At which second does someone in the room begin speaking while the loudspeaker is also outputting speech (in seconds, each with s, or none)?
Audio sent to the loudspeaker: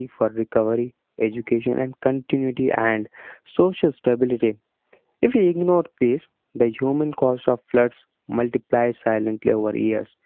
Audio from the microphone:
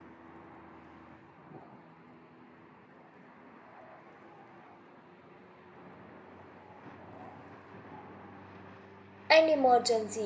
9.3 s